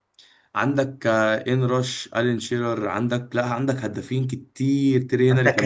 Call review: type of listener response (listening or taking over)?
taking over